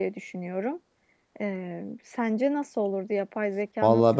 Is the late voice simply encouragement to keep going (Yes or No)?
No